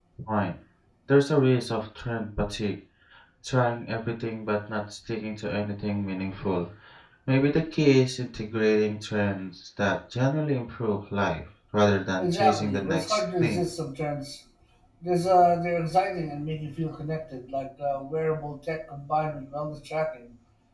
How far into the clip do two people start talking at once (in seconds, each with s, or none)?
12.2 s